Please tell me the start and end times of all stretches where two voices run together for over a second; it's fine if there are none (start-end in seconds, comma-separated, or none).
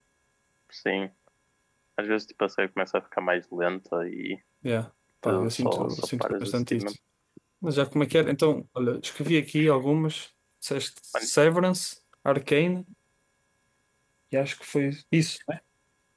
5.2-6.9